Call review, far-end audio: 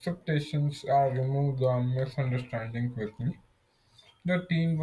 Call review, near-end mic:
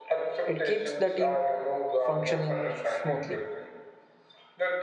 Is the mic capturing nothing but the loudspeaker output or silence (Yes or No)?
No